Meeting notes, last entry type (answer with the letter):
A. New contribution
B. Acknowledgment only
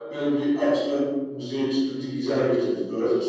A